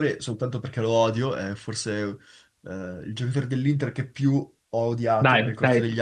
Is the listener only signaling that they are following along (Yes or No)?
No